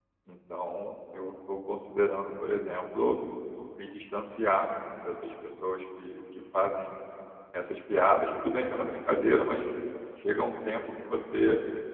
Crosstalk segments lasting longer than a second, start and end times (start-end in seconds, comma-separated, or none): none